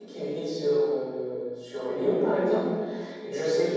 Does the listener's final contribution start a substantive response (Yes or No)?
No